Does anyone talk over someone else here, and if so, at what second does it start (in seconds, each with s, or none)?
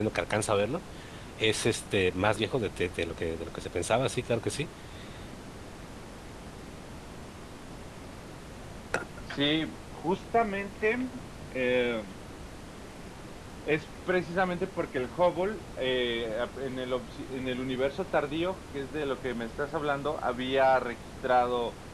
none